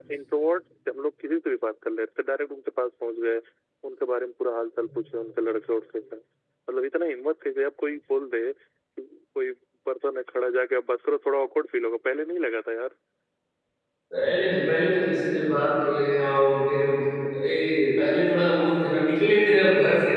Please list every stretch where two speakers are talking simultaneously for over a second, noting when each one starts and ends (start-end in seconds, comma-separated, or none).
none